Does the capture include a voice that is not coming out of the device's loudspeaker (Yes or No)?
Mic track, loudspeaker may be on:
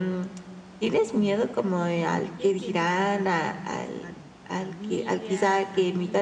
Yes